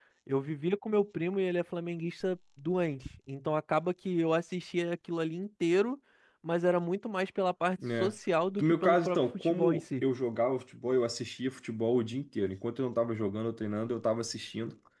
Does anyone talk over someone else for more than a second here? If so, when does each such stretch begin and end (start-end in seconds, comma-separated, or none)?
8.6-10.0